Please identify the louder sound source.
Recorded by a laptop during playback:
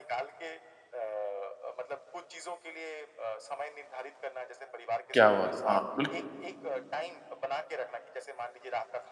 user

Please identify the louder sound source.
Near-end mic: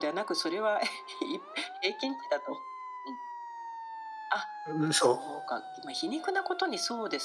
user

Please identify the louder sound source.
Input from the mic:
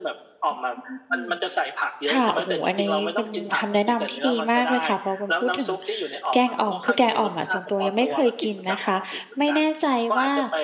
user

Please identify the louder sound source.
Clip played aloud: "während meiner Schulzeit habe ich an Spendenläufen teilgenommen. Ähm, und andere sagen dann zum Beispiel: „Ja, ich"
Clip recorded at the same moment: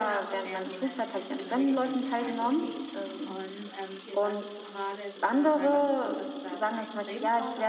echo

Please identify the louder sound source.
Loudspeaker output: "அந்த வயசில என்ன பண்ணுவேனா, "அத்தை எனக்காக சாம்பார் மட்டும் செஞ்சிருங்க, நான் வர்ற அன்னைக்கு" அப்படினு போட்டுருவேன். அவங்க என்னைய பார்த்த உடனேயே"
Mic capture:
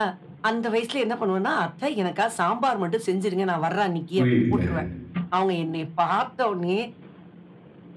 user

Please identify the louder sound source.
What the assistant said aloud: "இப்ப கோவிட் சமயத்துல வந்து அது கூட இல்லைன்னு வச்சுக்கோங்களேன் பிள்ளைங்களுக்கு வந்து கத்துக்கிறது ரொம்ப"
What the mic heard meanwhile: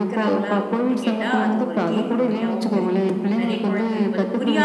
echo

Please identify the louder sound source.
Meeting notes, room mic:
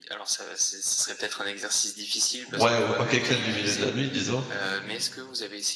user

